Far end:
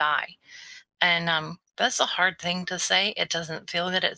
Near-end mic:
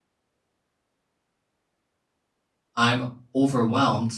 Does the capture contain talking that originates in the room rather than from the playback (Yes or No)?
Yes